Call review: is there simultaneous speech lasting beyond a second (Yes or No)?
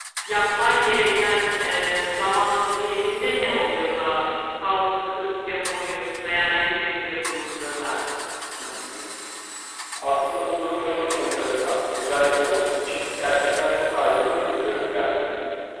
No